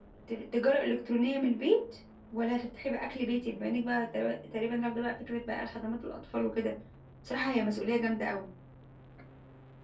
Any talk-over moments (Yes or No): No